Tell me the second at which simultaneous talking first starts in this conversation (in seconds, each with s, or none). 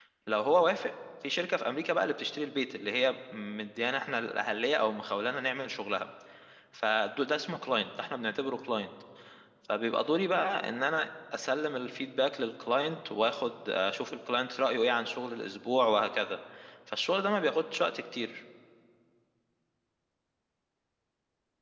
none